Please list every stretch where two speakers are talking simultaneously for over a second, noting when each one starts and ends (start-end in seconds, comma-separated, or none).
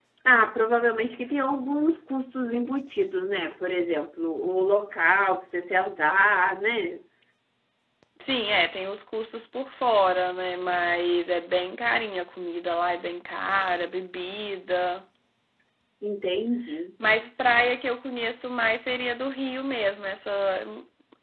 none